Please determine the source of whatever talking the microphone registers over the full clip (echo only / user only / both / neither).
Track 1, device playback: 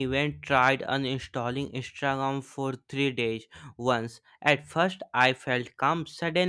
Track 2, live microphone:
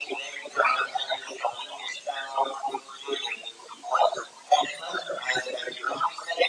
echo only